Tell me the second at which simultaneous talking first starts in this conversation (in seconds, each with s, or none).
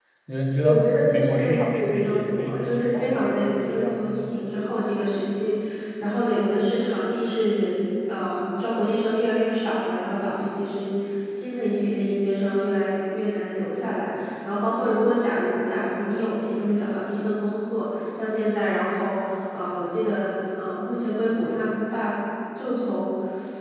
0.6 s